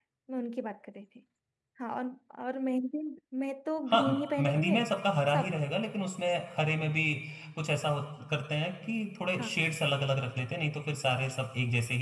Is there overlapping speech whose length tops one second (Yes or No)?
No